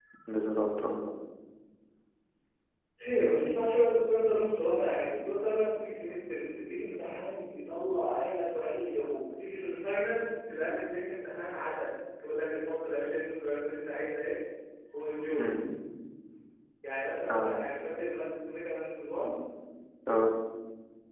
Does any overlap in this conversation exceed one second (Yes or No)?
No